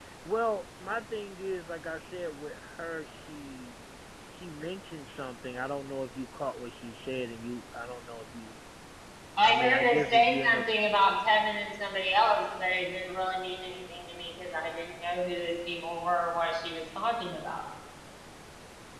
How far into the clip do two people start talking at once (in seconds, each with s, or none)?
9.4 s